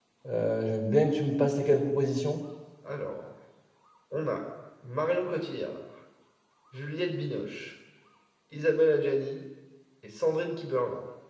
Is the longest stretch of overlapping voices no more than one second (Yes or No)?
Yes